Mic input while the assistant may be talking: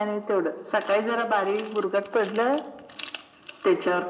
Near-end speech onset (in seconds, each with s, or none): none